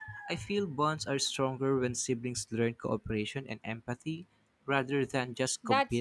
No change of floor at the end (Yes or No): No